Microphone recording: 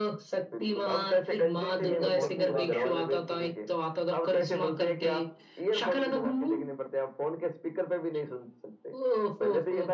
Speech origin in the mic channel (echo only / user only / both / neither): both